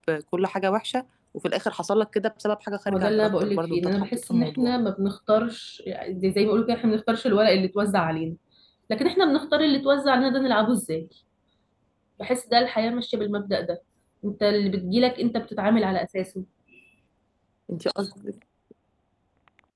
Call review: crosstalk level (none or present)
present